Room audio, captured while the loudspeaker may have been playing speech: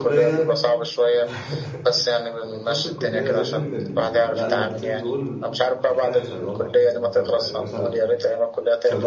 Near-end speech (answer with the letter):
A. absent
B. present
B